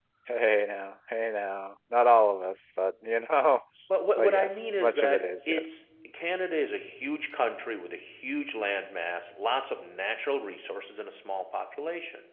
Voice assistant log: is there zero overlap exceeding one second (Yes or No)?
No